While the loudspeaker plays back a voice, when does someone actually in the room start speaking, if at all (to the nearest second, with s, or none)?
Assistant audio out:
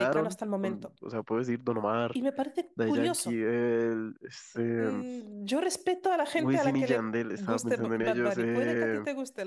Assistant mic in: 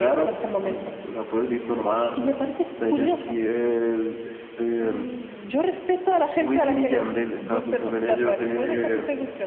none